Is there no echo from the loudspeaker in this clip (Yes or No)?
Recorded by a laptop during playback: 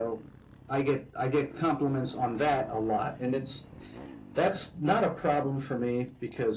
No